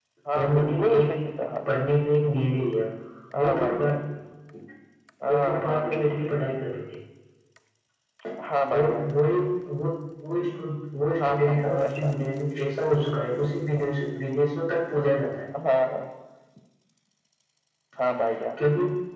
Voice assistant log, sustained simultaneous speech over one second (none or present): present